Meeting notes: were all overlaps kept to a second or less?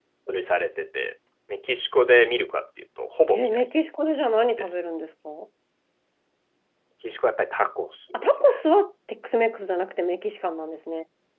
Yes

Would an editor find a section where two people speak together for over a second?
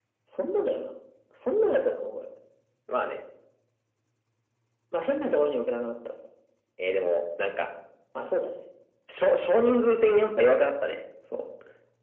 No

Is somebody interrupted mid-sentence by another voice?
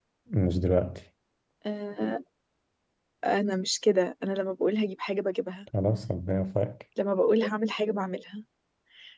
No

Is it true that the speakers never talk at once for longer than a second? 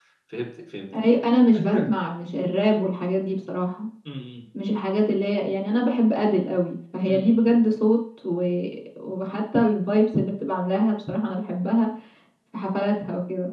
Yes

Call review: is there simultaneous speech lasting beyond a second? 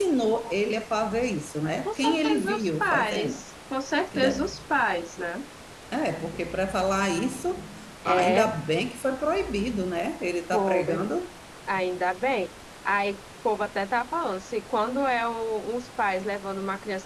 Yes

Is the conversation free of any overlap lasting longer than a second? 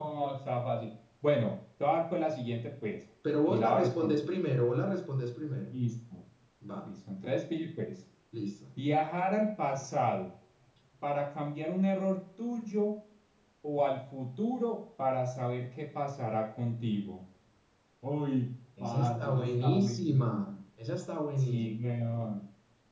No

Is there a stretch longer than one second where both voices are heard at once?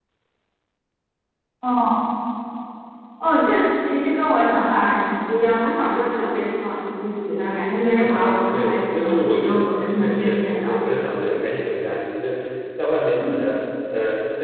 Yes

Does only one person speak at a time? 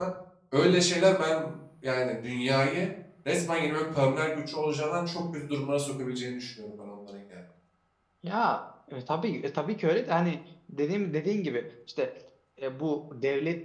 Yes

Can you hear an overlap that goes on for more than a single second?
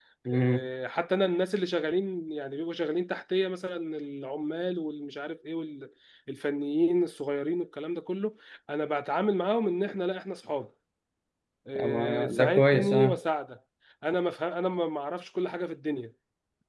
Yes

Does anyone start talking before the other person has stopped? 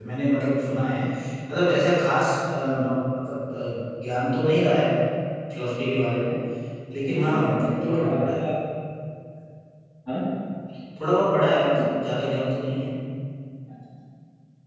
Yes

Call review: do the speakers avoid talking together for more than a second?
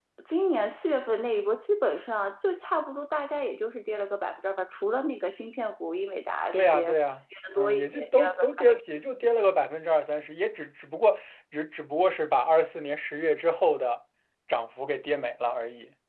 No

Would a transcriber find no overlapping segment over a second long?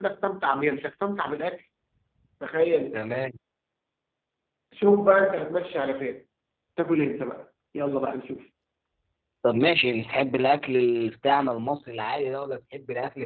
Yes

